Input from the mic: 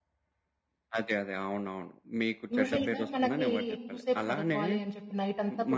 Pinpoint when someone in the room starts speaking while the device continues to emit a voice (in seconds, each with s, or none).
2.6 s